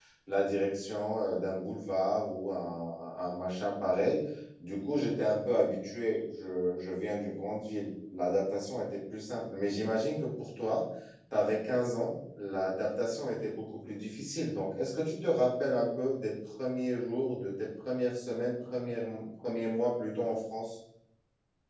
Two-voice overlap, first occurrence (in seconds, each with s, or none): none